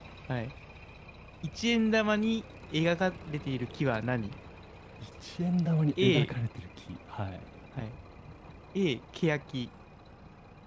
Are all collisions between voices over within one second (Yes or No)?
Yes